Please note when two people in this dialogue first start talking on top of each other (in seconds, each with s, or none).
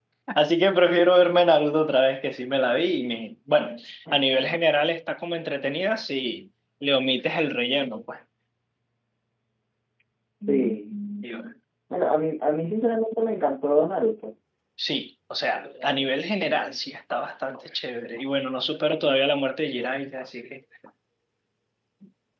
none